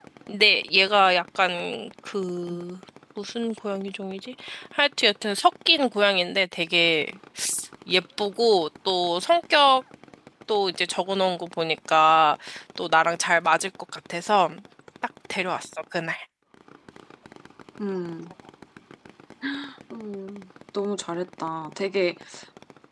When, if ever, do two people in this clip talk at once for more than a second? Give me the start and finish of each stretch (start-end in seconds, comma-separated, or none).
none